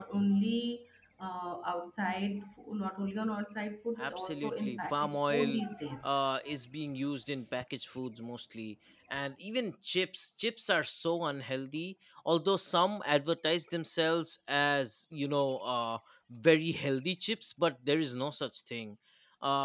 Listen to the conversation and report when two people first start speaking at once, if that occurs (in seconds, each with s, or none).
4.0 s